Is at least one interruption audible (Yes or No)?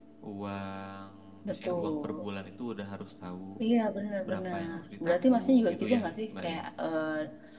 Yes